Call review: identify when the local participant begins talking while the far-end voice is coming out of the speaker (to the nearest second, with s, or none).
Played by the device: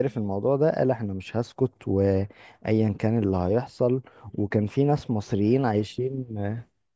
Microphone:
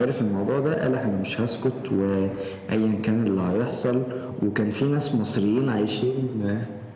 none